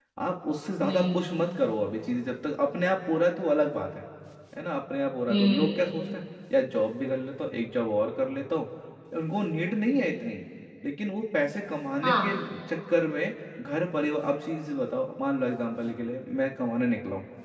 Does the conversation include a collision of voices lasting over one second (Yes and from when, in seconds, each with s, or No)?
No